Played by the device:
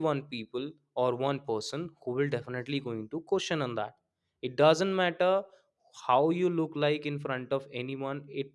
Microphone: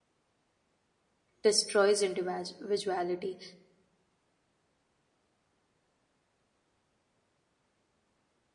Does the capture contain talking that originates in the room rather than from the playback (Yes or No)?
Yes